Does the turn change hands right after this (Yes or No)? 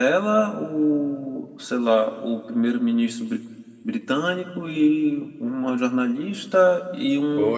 Yes